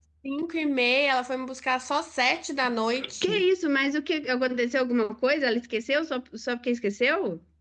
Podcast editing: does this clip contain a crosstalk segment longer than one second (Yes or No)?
No